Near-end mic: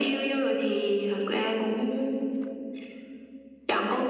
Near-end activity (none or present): none